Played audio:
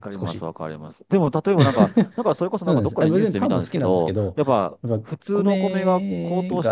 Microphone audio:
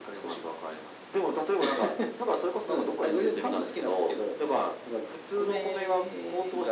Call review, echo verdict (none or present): present